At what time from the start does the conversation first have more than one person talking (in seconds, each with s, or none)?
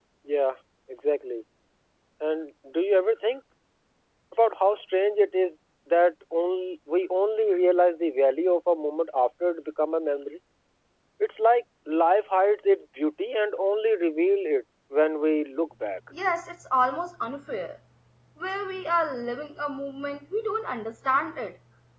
none